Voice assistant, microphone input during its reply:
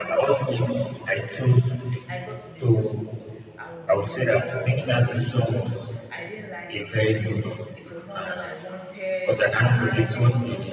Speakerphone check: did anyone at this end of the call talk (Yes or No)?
Yes